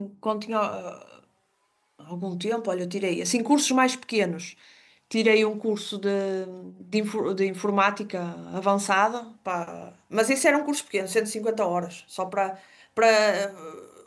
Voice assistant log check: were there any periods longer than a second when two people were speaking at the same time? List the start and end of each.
none

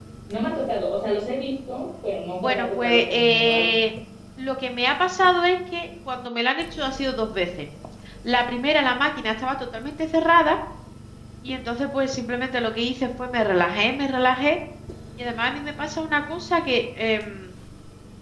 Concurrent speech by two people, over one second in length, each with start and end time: 2.4-3.8

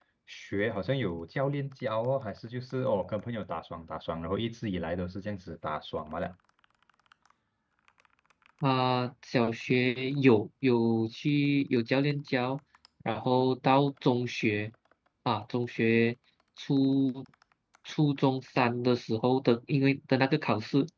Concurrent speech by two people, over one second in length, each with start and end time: none

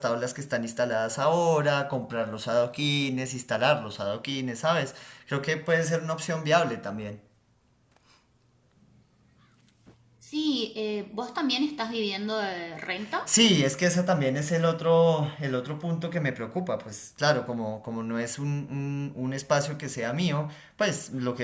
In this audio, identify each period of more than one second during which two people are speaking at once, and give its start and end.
none

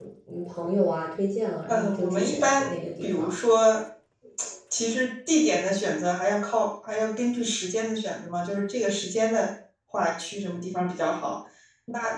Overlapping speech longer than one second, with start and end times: 1.7-3.4

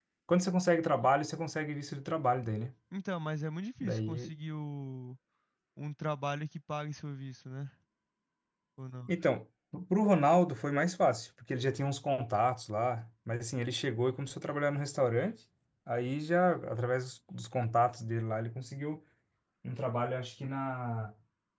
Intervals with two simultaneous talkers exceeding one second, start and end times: none

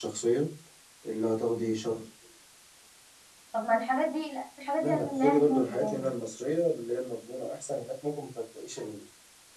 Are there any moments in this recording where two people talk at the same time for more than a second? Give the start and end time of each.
4.8-6.1

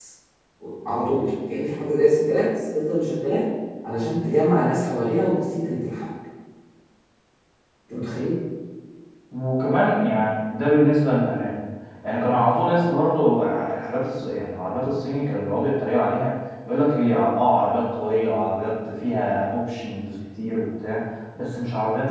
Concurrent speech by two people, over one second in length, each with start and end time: none

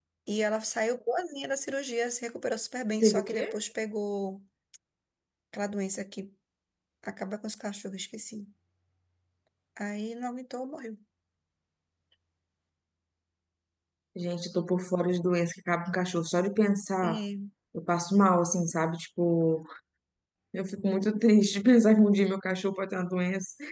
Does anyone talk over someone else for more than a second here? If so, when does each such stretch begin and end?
none

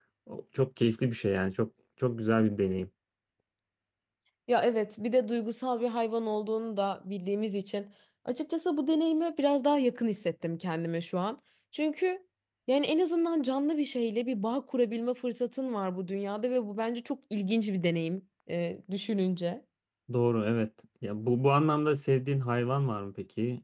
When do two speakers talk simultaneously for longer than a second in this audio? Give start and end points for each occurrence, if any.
none

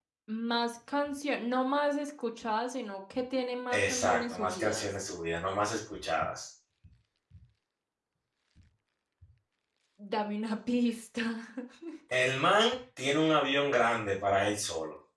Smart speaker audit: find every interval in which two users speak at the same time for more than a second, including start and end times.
3.7-4.9

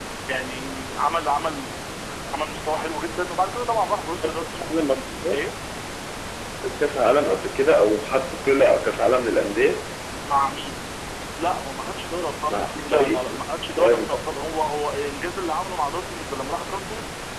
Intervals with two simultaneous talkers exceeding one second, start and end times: 12.5-14.2

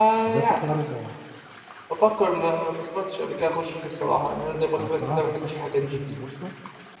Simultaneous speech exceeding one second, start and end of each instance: 4.8-6.0

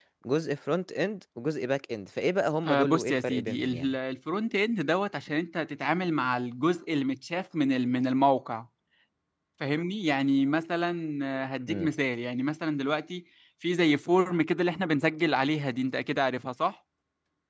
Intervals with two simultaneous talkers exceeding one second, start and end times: 2.6-4.0

